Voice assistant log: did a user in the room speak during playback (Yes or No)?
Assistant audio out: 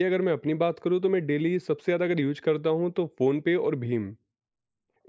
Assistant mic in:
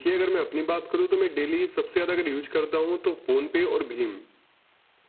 No